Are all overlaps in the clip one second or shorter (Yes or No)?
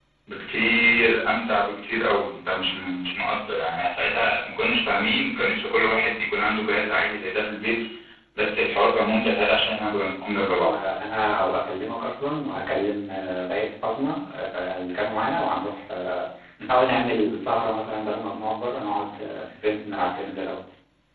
Yes